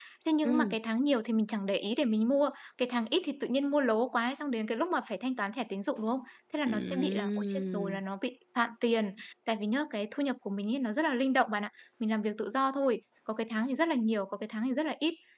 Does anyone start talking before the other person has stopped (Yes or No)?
Yes